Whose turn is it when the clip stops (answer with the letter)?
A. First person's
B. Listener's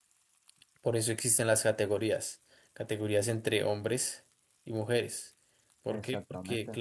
A